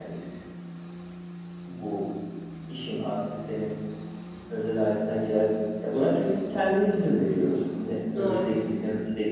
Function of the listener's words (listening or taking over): listening